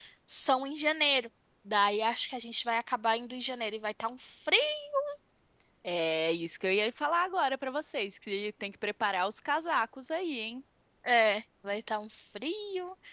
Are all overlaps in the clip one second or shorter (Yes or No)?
Yes